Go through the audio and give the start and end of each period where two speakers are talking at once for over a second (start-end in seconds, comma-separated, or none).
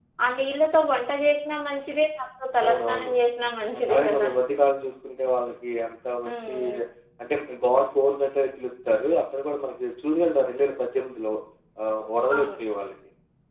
none